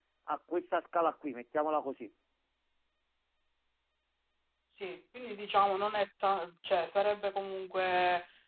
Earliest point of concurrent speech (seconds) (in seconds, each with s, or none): none